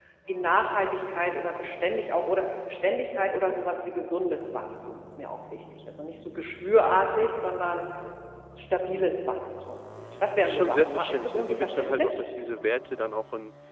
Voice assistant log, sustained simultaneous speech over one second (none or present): present